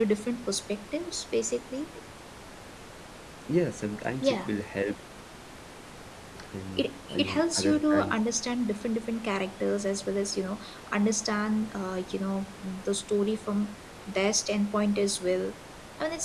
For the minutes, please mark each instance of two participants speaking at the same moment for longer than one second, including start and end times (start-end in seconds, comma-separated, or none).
6.8-8.2